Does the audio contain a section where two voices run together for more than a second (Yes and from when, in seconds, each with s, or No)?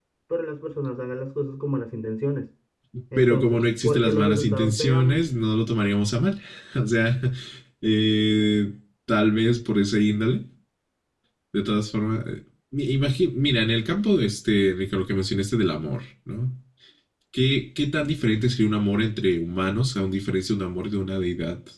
Yes, from 3.2 s